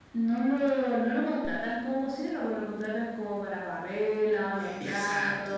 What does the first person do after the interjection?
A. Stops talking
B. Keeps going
B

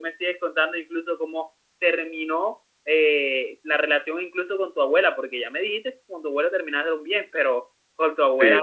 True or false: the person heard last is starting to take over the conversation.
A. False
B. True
A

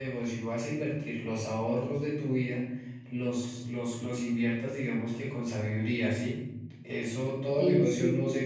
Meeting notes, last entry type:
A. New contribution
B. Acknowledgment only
B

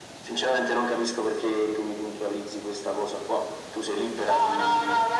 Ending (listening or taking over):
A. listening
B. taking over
B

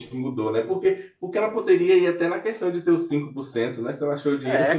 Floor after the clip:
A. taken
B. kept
A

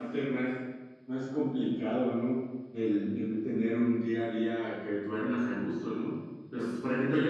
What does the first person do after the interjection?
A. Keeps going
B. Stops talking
A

